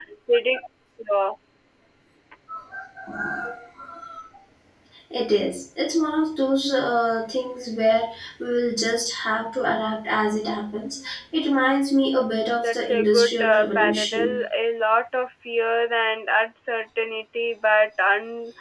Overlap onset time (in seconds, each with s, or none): 12.6 s